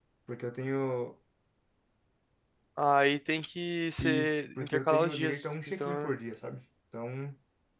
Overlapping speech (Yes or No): Yes